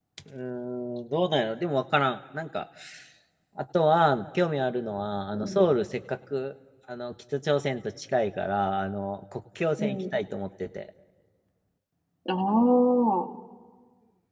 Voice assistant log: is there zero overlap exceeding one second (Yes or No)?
Yes